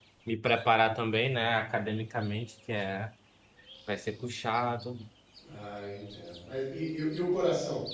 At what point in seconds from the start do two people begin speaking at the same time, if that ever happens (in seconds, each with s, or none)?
none